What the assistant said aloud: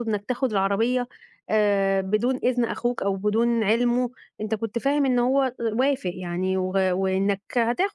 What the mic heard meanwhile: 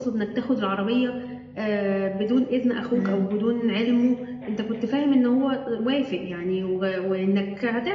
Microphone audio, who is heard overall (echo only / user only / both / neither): both